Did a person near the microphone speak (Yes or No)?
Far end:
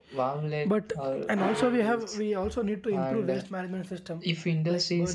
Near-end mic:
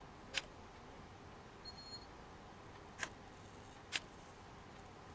No